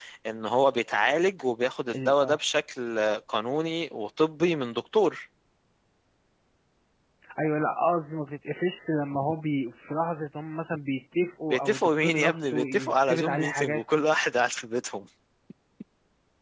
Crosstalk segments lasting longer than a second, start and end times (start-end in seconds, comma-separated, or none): 11.5-13.8